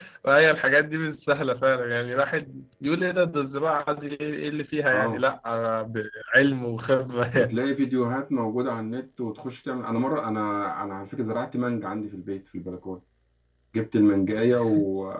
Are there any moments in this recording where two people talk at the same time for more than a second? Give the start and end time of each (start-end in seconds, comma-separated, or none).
none